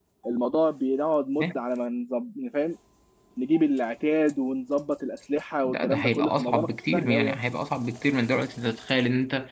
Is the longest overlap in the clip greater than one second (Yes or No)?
Yes